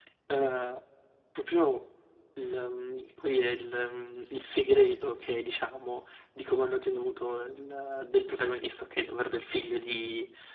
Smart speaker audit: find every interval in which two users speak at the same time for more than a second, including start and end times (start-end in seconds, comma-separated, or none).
none